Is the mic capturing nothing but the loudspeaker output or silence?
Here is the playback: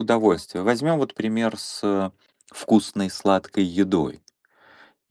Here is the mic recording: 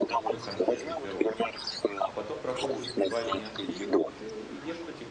No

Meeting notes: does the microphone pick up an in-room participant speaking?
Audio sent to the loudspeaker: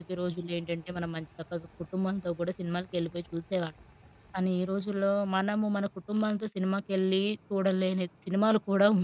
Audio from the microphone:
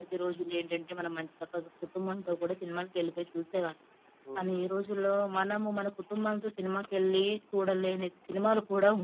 Yes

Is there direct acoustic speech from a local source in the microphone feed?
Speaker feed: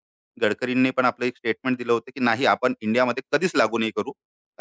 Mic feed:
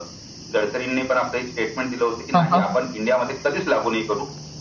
Yes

